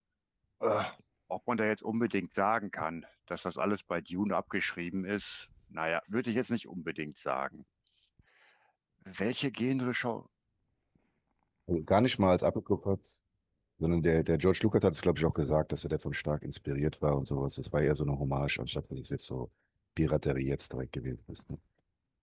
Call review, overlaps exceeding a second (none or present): none